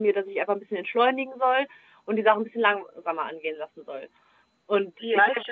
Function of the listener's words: taking over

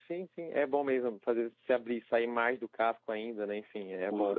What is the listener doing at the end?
taking over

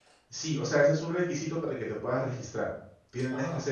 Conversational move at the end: listening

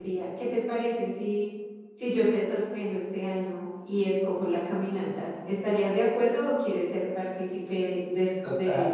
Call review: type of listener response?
taking over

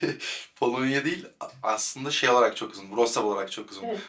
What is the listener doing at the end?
listening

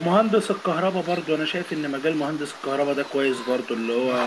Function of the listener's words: listening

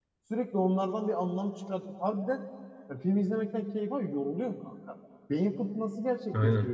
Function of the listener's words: taking over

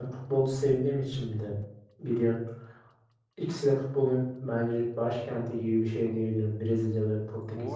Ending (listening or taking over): taking over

